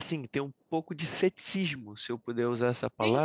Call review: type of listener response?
listening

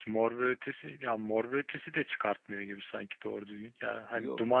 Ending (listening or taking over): listening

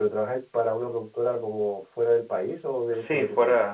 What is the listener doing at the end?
taking over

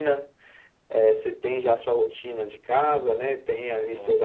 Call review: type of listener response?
listening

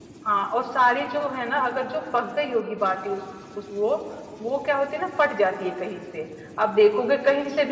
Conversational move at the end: listening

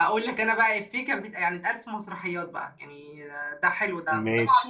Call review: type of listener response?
listening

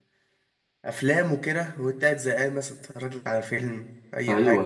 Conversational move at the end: taking over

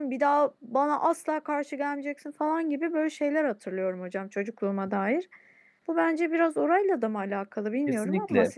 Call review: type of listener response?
taking over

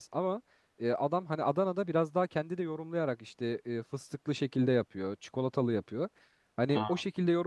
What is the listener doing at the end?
listening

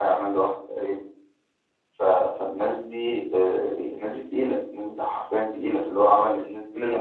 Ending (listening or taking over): taking over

